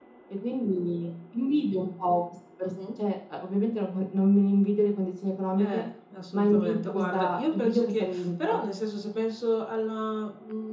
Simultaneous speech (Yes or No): Yes